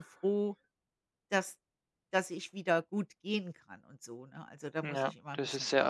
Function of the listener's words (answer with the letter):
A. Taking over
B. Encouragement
A